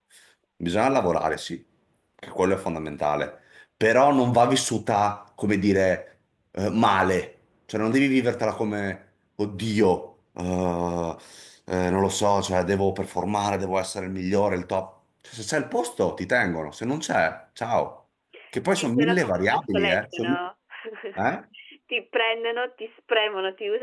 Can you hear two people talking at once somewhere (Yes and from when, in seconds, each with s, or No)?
Yes, from 18.8 s